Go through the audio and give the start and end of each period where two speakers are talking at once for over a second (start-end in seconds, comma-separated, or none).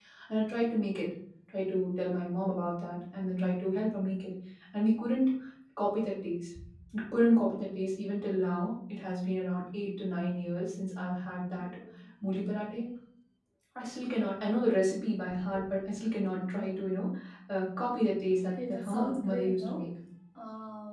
18.5-19.8